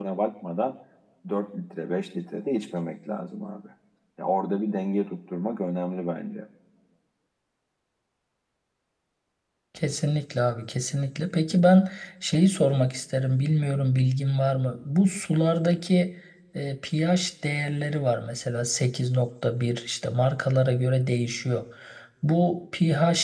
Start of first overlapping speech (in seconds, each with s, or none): none